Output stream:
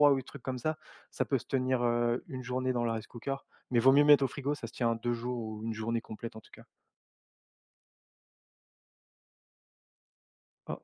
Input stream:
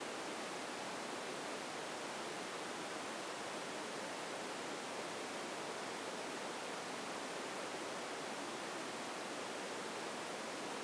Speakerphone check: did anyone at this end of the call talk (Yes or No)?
No